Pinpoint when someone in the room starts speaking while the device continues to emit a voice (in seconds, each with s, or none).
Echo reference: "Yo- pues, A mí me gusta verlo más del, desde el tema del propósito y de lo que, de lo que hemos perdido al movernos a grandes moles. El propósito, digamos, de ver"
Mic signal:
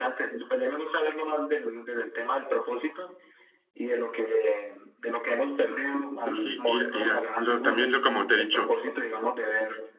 6.2 s